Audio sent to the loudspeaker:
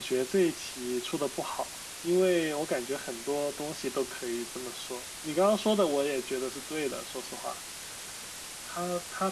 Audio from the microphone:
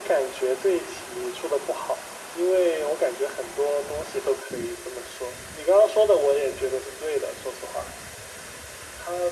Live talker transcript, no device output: none

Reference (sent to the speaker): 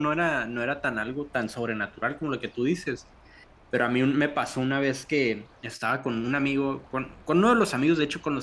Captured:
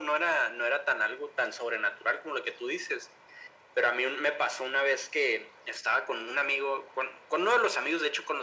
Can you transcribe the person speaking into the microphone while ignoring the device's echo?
none

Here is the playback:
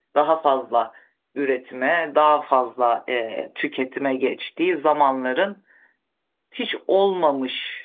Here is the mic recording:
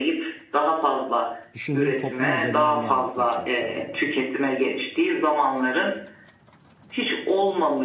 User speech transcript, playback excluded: düşündüğün toplum üzerinden devam etmeye çalışıyorum bu arada.

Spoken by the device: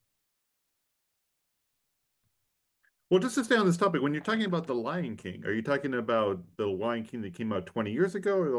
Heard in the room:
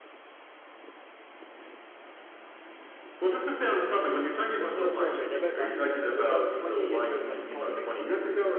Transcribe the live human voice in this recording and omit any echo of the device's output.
So, sorry, sorry, they're both animated, but the one 20 years ago is like a cartoon.

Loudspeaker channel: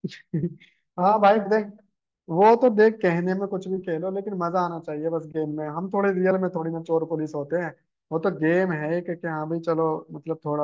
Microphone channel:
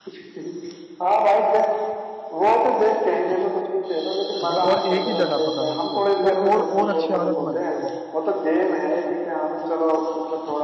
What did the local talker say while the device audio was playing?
मतलब और एक ही जगह पर करो उसको तो और और अच्छी आदत बनती है वो

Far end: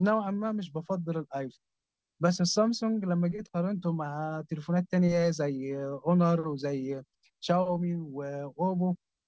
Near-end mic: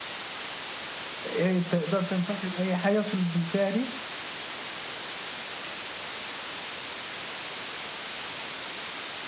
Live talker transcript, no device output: إيه تقدر تنصحني بأي حاجة في في الفئة دي؟

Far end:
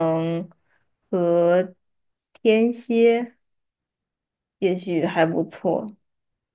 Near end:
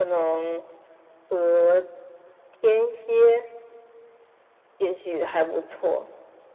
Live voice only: none

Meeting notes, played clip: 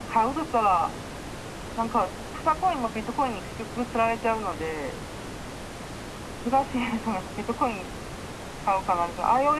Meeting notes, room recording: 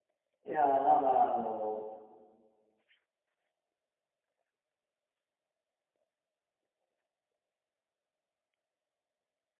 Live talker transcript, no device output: いやー、まあまあ、あの、

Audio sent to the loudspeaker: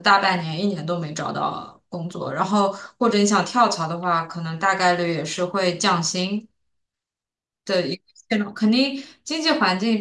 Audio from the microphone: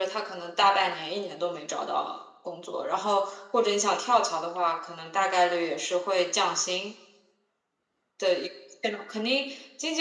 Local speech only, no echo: none

